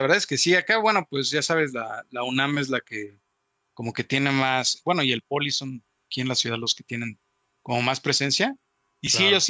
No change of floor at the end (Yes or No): Yes